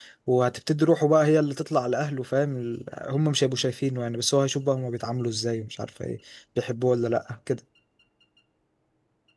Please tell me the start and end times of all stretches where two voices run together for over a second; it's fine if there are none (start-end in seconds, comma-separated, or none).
none